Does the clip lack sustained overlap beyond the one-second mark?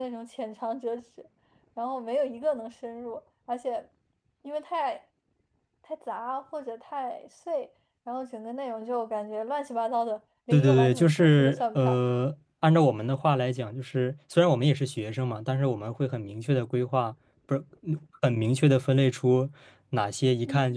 No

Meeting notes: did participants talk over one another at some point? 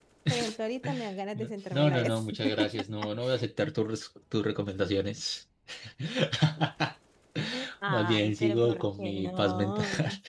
Yes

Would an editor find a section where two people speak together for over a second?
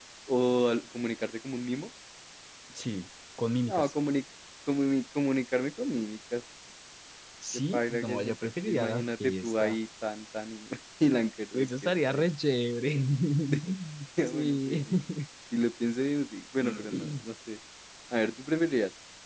Yes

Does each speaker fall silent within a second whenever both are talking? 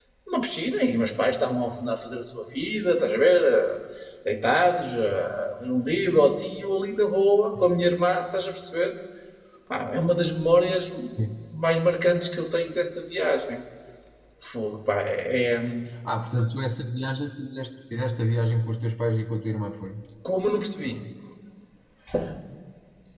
Yes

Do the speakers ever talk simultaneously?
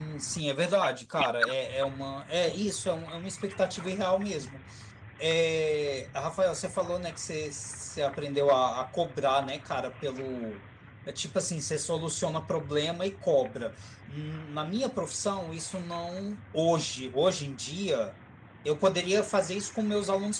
No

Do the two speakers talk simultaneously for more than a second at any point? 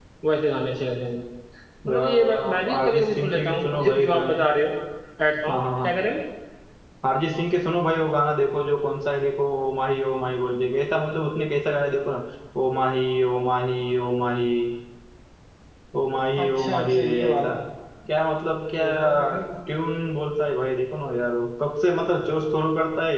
Yes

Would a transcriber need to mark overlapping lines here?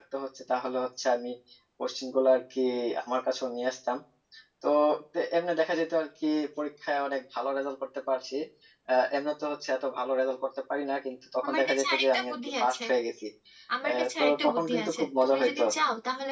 Yes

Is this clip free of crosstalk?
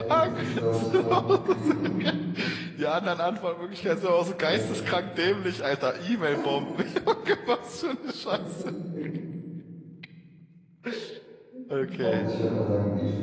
No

